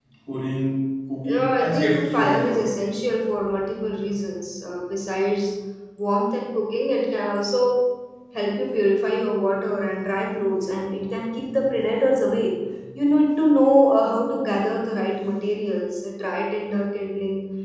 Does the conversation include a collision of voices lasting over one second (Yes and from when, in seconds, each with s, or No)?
Yes, from 1.2 s